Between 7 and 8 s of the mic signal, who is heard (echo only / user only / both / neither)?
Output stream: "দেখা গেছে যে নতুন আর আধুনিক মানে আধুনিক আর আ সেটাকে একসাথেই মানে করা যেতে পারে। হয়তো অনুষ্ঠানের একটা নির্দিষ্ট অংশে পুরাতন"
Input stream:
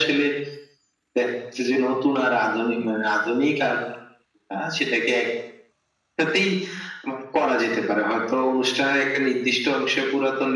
echo only